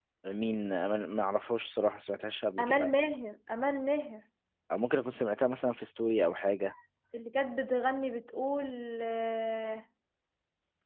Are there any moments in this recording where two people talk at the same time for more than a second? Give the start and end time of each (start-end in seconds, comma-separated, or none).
none